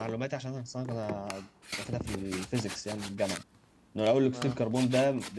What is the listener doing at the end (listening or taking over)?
listening